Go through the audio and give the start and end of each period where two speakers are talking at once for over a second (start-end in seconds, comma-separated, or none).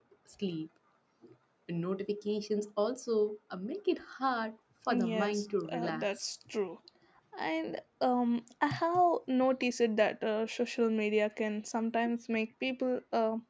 4.9-6.2